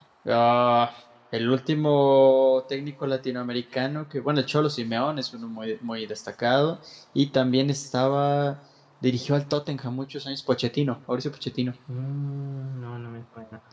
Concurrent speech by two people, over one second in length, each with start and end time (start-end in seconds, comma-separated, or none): none